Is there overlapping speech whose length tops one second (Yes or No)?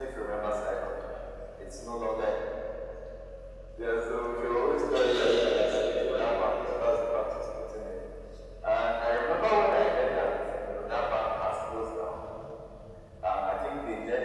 Yes